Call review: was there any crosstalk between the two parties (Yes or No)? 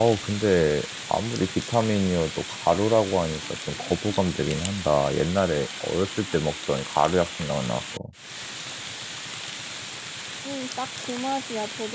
No